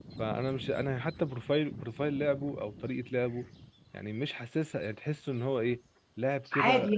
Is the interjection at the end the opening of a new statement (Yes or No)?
No